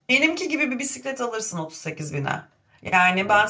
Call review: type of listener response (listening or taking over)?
listening